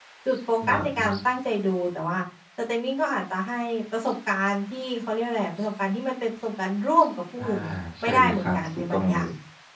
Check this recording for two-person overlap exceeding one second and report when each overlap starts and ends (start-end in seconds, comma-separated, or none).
8.0-9.3